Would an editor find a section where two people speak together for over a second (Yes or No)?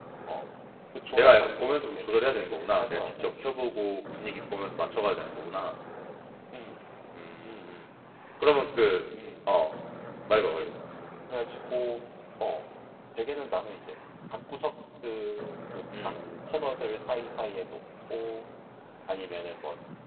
Yes